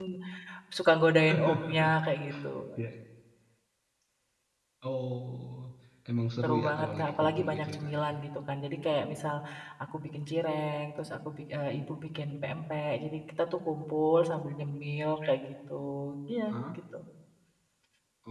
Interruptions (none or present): present